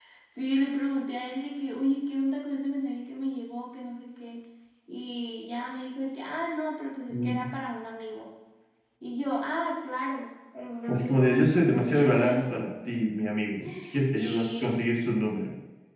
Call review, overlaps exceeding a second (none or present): present